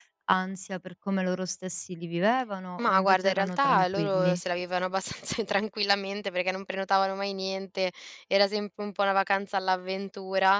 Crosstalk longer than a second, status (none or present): present